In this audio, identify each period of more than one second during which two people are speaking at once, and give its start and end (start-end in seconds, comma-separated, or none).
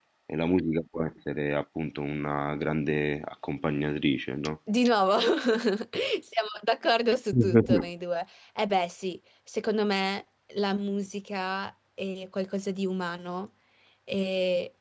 none